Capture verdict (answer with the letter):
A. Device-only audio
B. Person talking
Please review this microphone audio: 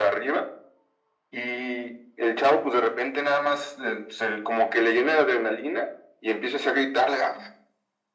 A